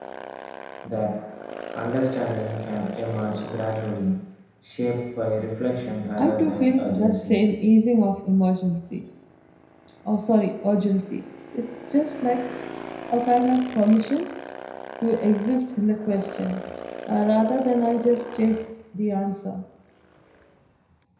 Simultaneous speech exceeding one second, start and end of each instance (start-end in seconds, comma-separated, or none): 6.2-7.4